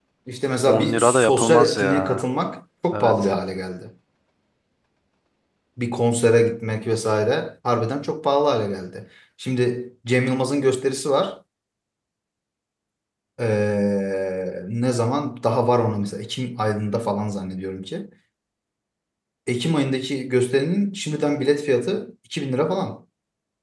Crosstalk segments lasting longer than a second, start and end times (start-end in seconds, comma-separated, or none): 0.7-2.2